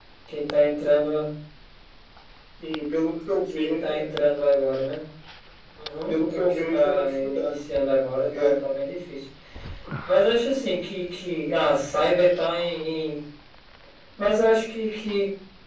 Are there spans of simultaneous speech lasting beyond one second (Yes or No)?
Yes